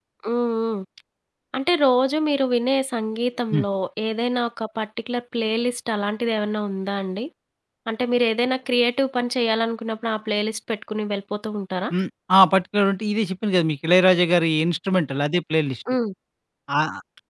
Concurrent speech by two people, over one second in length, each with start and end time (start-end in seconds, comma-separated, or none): none